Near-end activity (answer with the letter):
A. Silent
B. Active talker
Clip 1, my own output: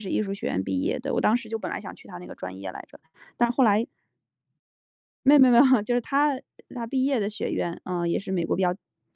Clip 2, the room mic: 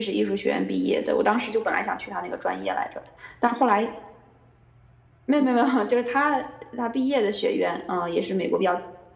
A